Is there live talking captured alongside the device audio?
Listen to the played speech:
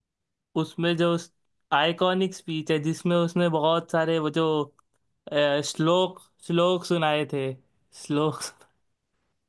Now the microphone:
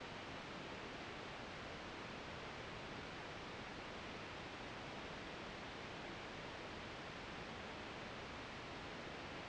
No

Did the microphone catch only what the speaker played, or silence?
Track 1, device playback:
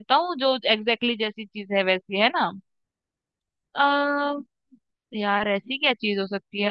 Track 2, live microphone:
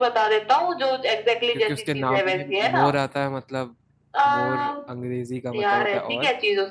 No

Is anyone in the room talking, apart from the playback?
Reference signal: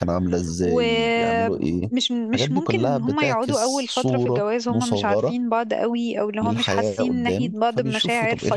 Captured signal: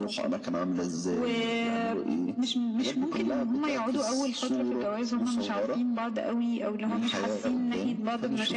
No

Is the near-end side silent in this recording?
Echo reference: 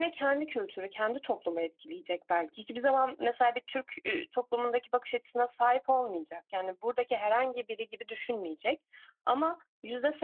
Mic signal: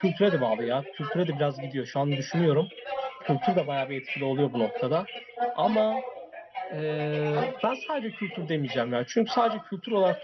No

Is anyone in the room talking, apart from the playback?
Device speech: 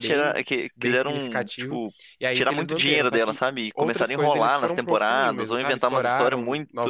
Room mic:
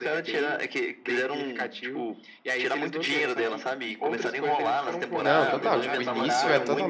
Yes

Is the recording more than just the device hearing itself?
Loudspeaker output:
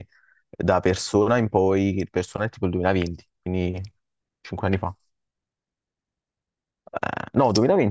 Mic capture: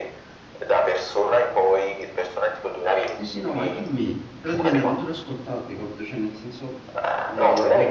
Yes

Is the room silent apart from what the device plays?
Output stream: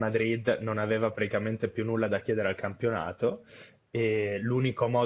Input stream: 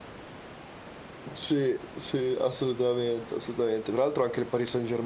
No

